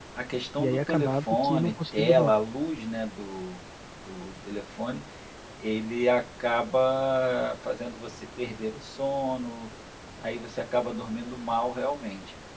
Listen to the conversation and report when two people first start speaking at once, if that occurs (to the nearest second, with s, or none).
1 s